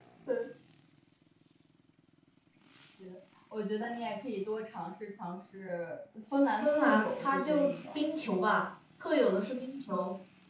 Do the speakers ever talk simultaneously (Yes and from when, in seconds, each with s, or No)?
Yes, from 6.6 s